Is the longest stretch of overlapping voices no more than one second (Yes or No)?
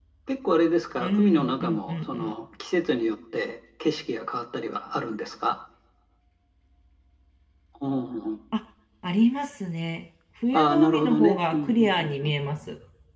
No